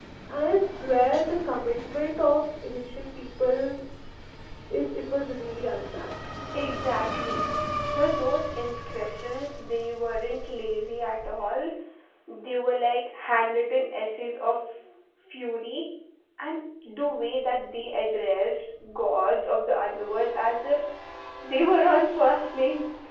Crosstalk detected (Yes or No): No